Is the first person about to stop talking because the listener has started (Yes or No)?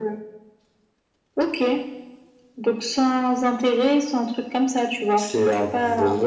Yes